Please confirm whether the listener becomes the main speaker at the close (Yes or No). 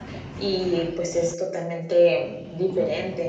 No